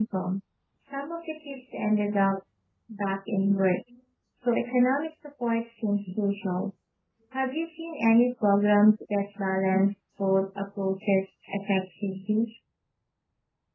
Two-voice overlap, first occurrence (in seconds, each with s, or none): none